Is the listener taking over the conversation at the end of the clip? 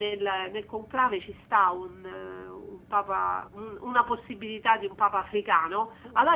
No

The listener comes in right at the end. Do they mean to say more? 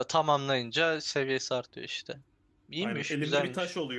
Yes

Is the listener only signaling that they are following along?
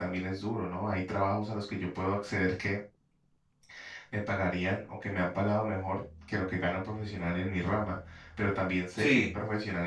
Yes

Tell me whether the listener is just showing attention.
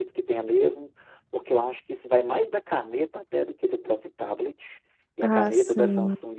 Yes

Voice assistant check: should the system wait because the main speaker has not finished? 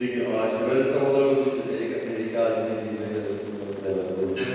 No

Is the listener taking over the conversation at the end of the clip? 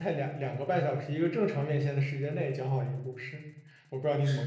Yes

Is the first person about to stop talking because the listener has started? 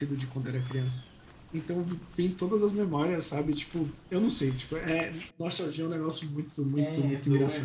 Yes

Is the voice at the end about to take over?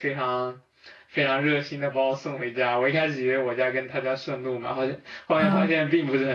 No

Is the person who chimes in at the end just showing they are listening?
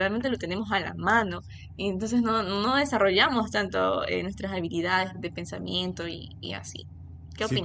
No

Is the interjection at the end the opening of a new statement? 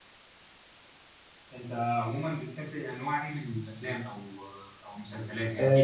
Yes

